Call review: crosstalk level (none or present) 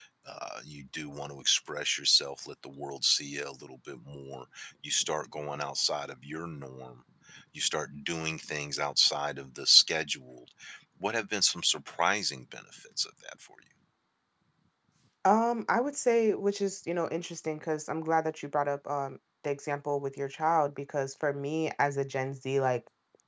none